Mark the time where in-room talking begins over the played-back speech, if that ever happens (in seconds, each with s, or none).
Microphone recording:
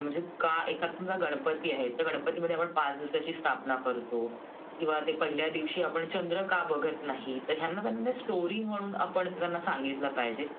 none